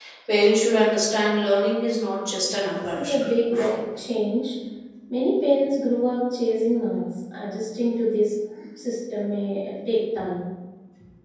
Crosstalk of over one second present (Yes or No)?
No